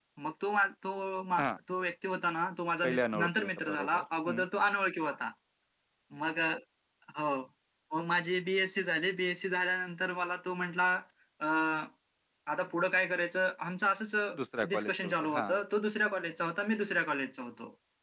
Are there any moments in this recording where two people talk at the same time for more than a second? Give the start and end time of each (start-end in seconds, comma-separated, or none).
2.8-4.4, 14.3-15.6